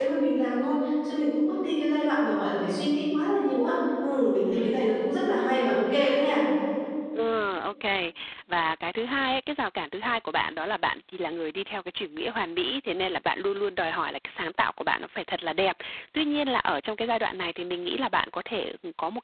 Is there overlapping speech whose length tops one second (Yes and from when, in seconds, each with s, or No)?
No